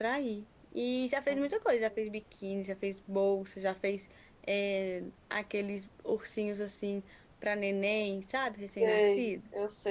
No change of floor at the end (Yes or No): No